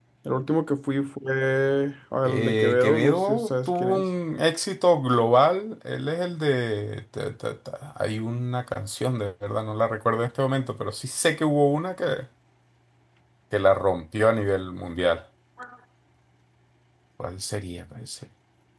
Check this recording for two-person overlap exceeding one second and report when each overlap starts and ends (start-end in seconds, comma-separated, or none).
2.2-4.0